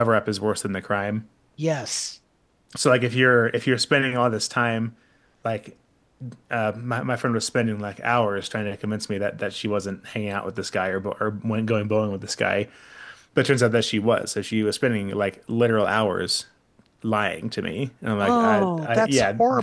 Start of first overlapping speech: 18.2 s

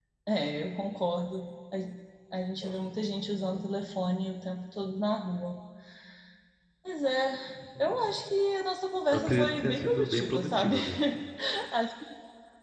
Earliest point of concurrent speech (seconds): 9.1 s

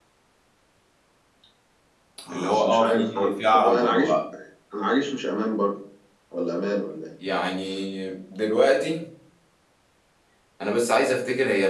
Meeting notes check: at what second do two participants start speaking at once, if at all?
2.3 s

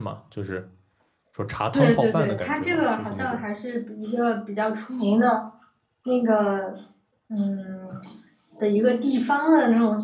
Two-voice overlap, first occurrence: 1.7 s

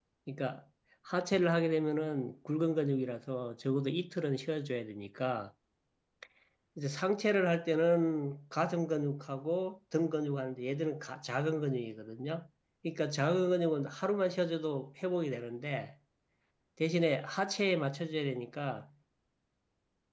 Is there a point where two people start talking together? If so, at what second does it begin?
none

